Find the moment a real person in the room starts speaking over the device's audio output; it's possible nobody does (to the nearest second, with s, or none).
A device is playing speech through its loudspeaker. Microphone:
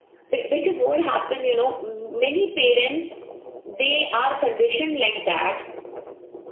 none